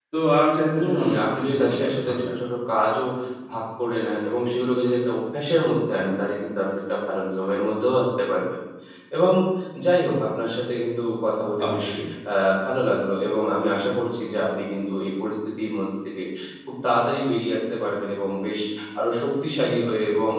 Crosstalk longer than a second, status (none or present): present